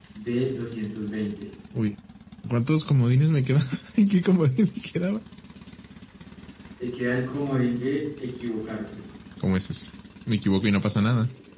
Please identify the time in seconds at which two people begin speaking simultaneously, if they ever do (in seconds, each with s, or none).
none